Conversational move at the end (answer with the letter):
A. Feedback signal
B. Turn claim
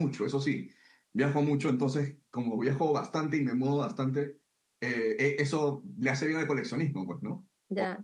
B